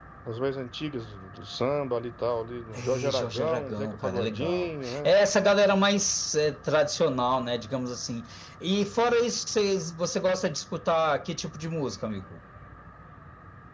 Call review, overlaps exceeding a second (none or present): present